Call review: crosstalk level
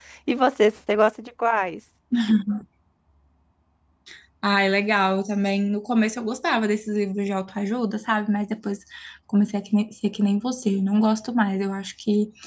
none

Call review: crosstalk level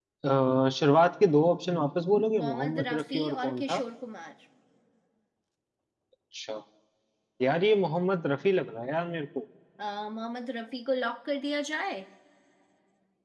present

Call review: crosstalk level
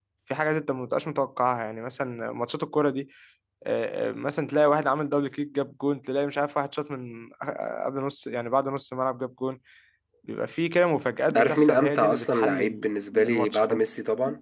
present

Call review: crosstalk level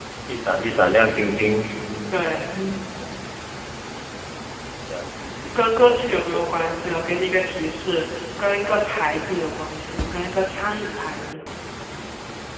none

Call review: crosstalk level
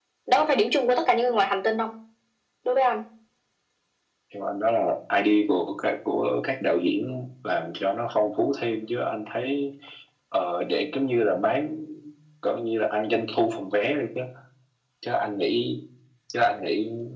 none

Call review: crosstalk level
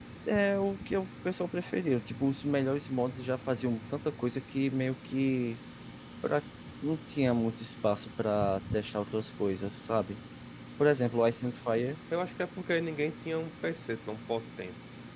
none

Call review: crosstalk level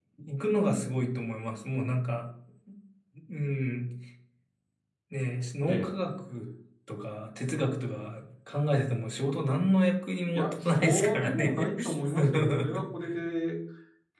present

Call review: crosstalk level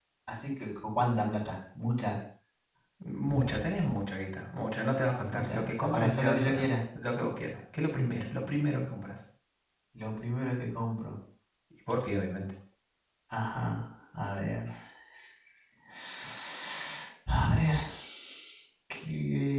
present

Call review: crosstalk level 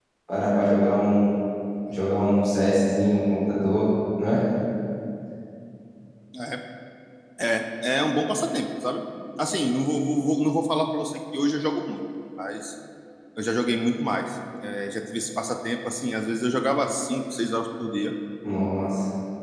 none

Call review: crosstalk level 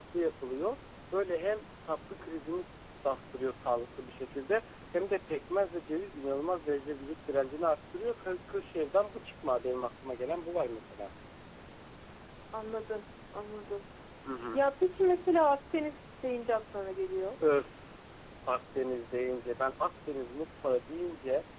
none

